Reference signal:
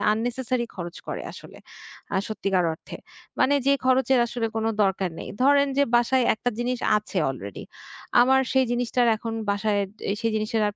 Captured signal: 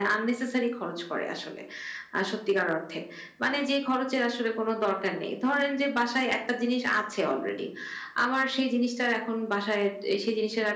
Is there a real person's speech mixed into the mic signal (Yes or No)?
No